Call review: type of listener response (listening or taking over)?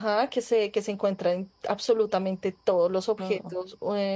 listening